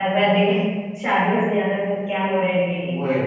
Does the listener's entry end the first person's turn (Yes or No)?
Yes